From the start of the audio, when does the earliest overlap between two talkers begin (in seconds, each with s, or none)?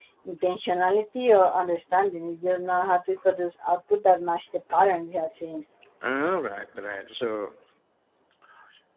none